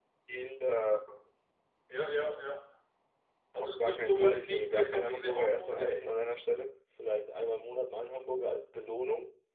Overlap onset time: 3.6 s

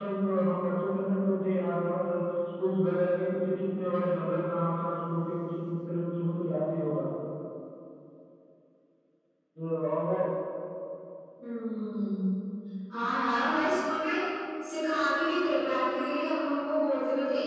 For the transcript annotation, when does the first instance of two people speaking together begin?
none

